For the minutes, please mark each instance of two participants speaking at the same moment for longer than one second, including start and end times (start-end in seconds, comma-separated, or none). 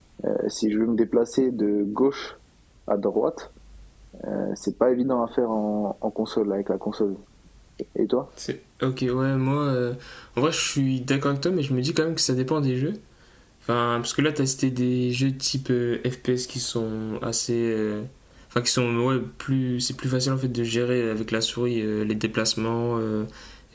none